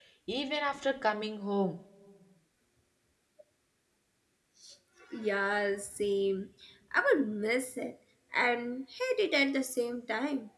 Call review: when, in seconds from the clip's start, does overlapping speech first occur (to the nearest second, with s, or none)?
none